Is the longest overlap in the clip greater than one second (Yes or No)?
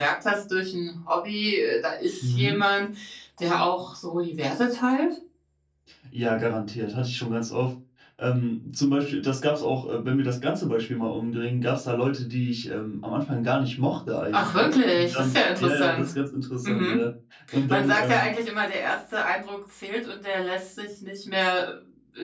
Yes